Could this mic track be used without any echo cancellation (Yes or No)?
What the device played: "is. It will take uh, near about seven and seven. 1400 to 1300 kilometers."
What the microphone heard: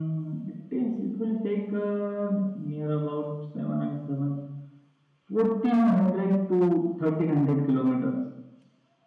No